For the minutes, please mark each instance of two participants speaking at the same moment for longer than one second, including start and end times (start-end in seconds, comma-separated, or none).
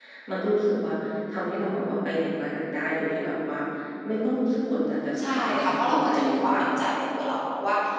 5.2-6.6